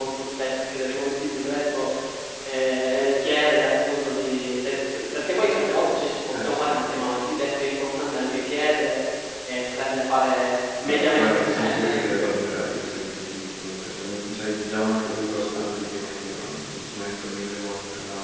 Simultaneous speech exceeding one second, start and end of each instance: 10.8-12.3

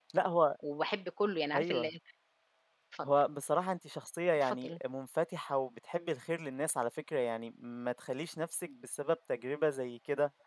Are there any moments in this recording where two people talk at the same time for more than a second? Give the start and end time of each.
none

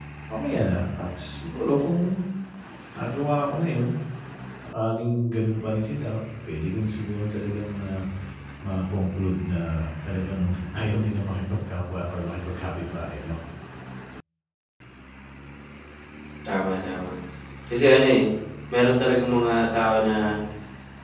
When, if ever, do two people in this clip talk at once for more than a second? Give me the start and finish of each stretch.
none

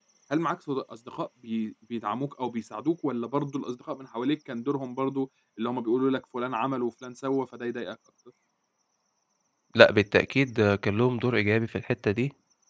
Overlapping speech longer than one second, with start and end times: none

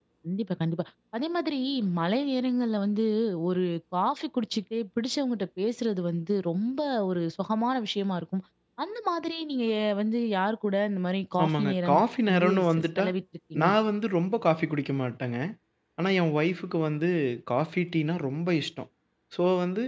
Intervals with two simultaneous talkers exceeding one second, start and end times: 11.4-13.1

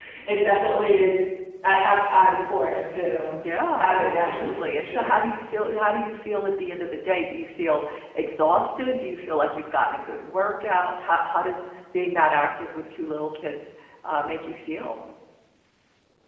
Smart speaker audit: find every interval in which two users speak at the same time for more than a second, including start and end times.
3.8-5.2

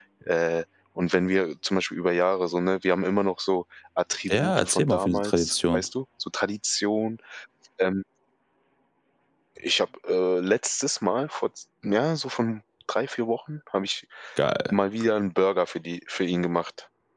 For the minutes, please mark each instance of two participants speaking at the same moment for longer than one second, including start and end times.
4.3-5.8

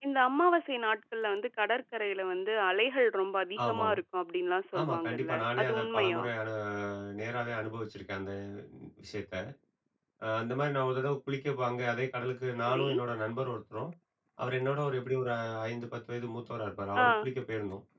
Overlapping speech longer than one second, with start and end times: 4.8-6.2

